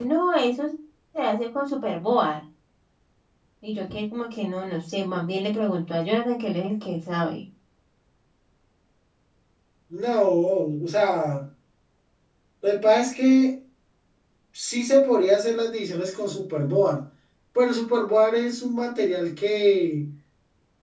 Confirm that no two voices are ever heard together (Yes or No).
Yes